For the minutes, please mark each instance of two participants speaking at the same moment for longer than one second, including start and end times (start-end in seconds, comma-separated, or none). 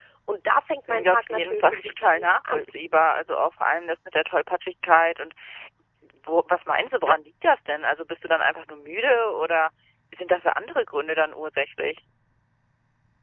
0.9-2.6